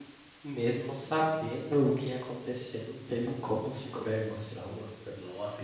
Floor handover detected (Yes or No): Yes